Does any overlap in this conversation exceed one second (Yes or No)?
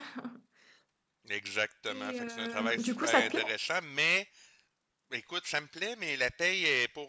Yes